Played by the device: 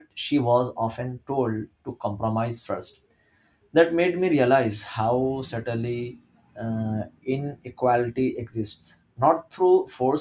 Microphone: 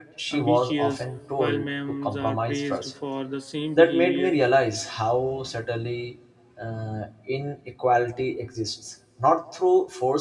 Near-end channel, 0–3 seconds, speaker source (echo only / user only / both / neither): both